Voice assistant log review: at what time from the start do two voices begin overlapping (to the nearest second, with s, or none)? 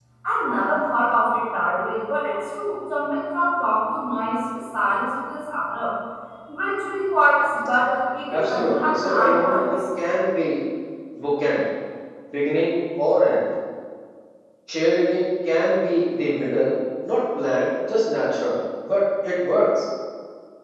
8 s